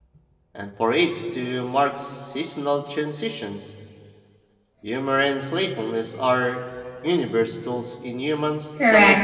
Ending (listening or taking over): taking over